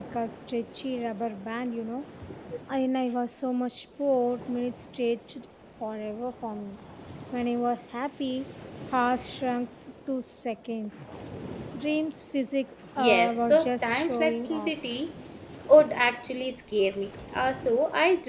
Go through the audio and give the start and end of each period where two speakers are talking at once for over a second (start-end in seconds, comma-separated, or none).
13.0-14.7